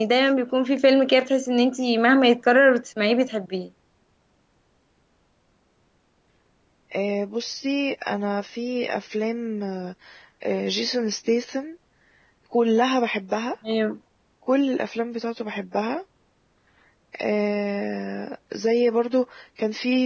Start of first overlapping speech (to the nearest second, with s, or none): none